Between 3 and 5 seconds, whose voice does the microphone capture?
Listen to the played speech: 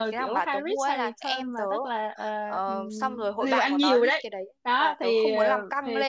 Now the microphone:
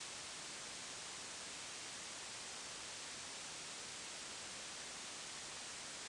neither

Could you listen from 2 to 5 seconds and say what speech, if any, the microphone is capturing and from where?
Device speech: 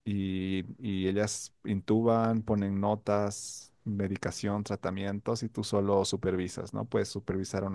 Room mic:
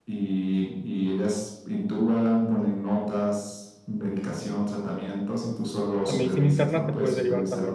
echo only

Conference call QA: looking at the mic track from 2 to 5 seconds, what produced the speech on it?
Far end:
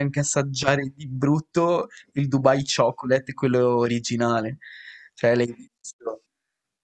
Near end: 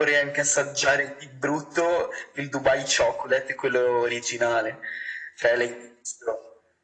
echo only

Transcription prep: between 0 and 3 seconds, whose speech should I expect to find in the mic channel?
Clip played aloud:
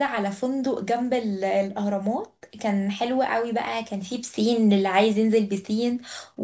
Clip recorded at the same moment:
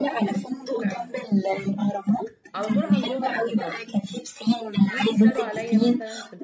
both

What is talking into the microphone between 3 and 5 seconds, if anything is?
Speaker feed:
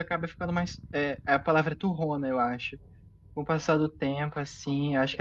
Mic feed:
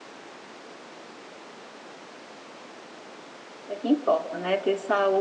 user only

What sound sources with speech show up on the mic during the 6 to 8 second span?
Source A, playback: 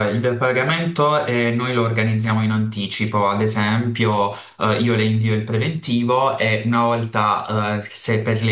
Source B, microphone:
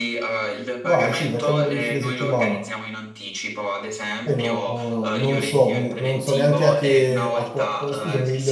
both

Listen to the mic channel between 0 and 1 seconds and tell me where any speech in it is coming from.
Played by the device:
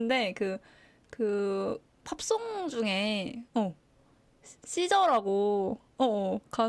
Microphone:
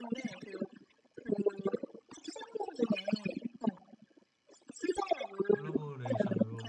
echo only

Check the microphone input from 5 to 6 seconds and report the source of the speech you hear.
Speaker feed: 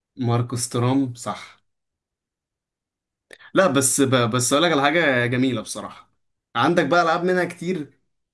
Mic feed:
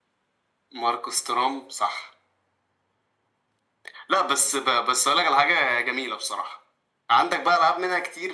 echo only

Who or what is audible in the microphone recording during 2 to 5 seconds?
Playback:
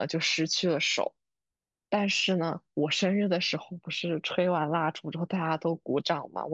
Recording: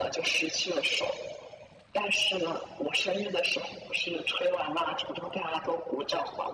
echo only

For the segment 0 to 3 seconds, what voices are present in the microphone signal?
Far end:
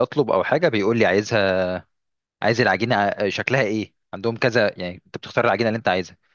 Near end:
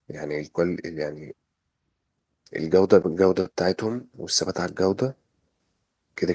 user only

